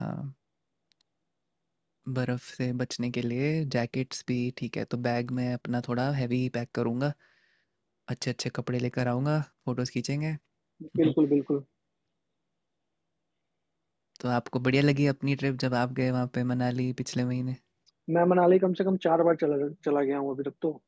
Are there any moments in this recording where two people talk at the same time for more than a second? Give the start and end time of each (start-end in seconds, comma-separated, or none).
none